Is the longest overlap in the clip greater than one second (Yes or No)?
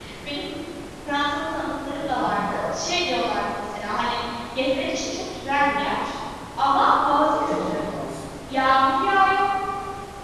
No